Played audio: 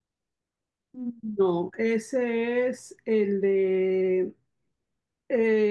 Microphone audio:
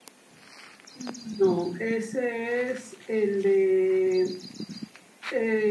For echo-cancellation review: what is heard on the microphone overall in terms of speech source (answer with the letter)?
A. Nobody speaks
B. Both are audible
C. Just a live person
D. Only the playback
D